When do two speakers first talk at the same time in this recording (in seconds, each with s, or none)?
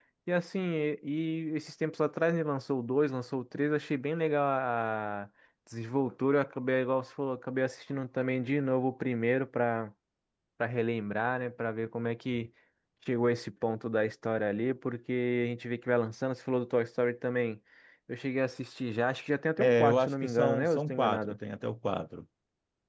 19.6 s